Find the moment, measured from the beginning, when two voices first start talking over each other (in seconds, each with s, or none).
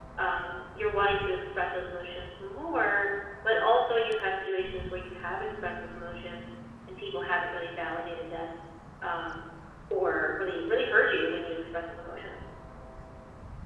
none